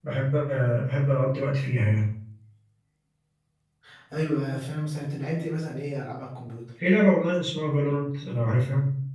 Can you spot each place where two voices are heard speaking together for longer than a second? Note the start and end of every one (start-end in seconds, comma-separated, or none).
none